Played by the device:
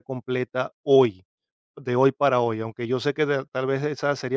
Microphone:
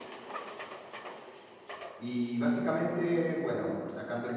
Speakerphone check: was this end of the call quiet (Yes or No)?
No